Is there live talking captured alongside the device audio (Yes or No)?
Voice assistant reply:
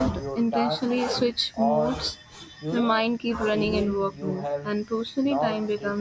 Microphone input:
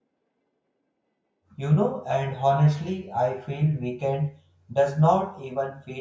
Yes